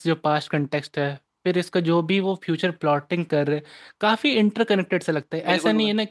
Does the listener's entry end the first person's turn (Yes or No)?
No